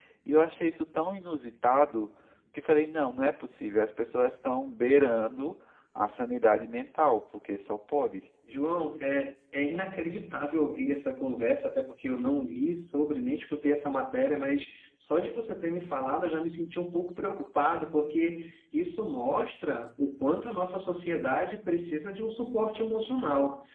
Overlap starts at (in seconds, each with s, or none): none